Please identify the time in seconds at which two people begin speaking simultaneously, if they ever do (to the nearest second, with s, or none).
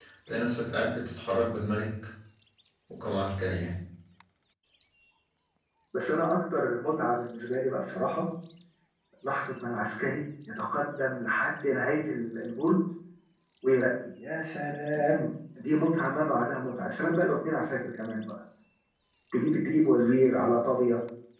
none